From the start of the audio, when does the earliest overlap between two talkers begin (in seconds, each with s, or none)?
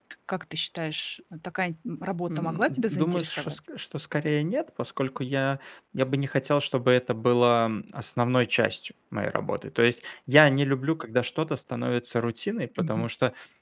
2.3 s